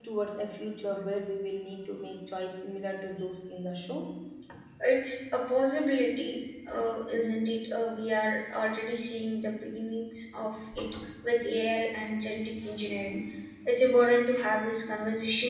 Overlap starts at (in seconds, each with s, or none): none